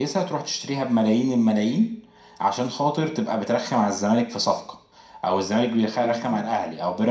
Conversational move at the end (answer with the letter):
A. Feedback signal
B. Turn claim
A